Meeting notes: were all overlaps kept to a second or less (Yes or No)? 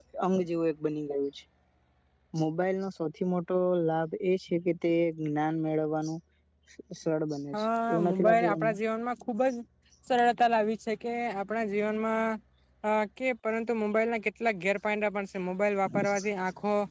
No